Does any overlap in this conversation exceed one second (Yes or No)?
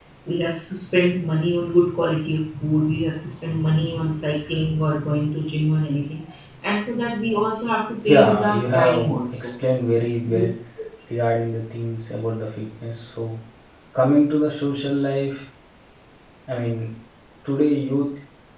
Yes